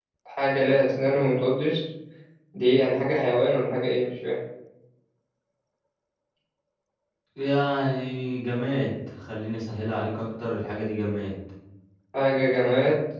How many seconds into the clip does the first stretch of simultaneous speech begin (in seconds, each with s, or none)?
none